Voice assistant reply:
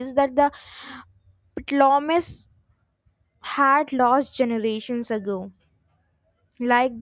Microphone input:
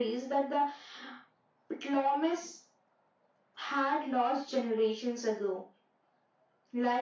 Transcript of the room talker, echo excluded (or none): none